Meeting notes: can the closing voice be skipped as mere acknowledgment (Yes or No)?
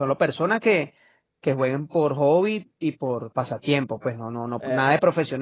Yes